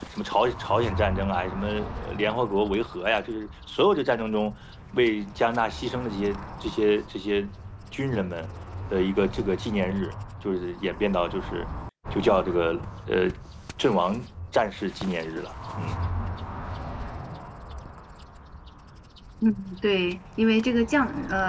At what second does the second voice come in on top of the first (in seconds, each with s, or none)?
none